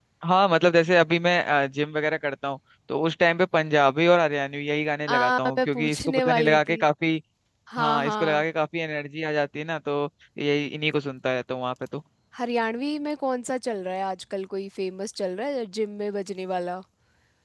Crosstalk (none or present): present